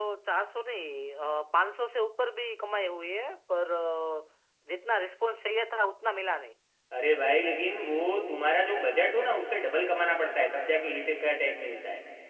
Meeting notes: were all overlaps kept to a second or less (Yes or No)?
Yes